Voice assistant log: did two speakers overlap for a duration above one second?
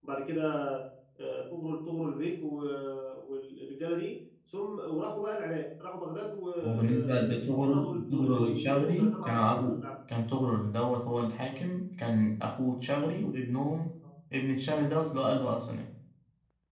Yes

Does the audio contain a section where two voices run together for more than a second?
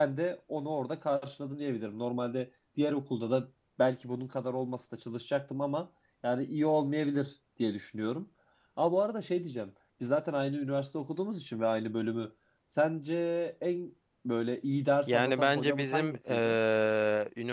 Yes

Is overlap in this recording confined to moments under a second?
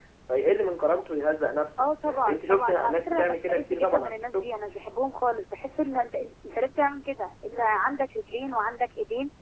No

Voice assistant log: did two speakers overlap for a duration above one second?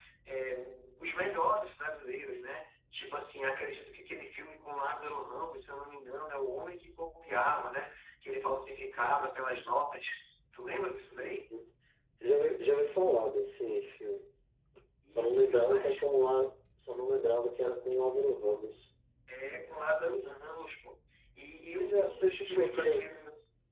Yes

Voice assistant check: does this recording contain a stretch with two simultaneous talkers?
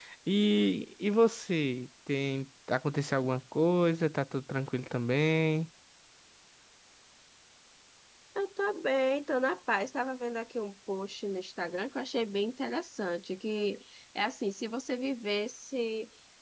No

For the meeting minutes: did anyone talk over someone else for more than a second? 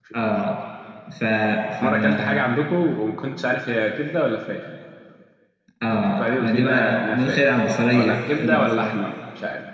Yes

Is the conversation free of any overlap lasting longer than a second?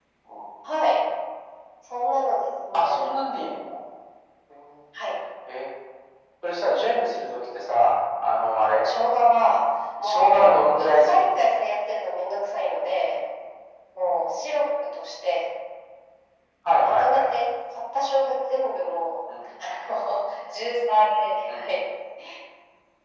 No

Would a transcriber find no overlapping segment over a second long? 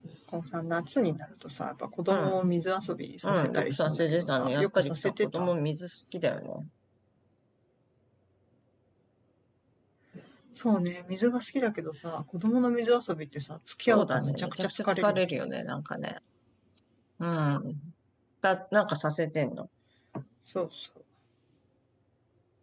No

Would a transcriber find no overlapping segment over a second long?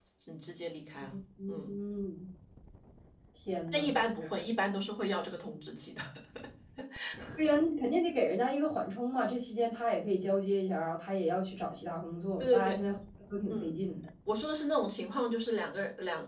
Yes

